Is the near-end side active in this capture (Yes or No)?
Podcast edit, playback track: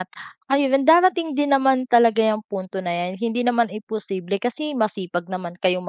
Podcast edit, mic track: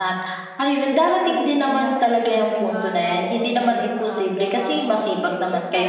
Yes